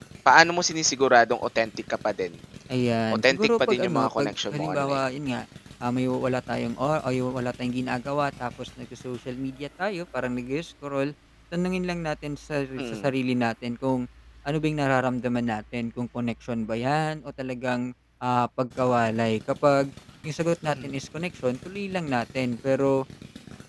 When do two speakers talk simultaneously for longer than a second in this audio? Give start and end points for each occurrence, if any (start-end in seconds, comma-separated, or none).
3.2-5.0